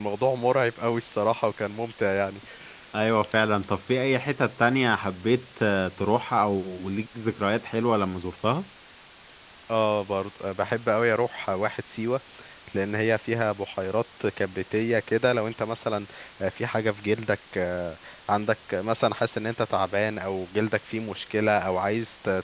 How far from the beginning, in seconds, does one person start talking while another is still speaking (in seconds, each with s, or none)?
none